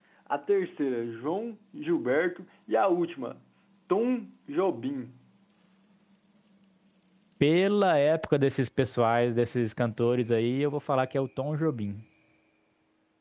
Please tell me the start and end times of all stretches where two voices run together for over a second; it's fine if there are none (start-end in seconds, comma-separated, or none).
none